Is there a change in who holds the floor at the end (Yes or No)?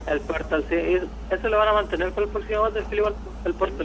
Yes